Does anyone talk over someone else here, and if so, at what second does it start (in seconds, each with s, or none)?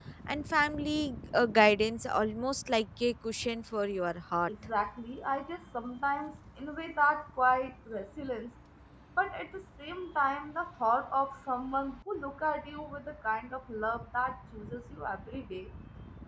none